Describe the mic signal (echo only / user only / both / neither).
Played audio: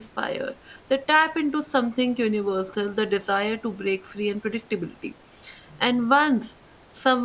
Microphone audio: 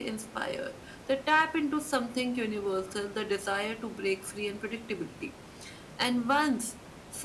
echo only